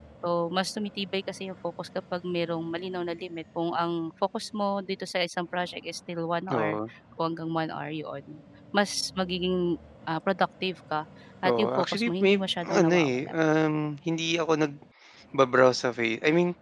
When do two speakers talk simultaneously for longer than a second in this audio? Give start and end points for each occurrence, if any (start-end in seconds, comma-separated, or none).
11.5-13.3